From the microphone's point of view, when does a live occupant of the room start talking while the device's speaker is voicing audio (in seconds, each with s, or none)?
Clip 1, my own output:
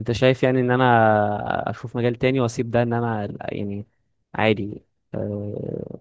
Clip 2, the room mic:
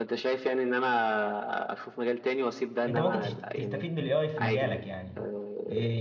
2.9 s